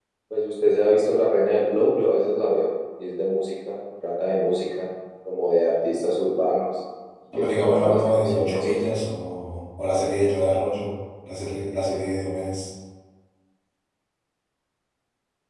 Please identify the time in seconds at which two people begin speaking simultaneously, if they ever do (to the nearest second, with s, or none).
7 s